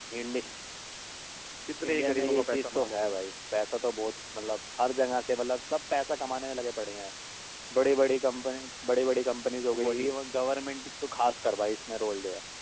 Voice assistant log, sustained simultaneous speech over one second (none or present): present